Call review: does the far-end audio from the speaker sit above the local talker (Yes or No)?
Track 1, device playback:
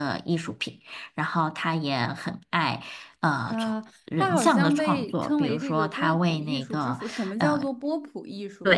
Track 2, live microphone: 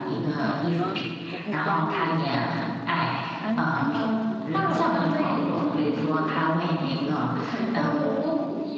Yes